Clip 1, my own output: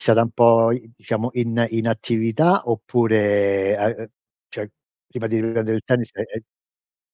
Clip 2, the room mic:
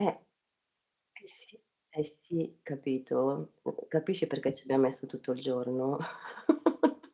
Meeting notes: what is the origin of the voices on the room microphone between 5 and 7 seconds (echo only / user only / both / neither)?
user only